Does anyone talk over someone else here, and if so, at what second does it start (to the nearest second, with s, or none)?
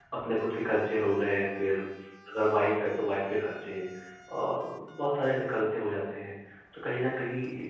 none